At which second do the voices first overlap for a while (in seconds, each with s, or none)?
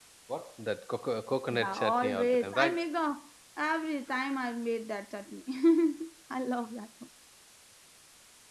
1.5 s